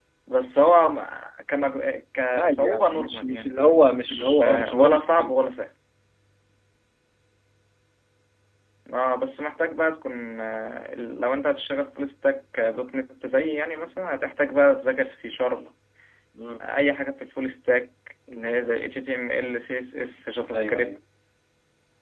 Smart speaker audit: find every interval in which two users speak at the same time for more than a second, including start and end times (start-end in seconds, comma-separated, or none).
2.4-5.4